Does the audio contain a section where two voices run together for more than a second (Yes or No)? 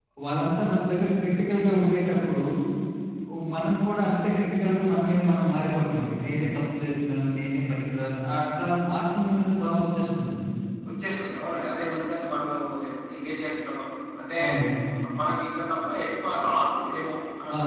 No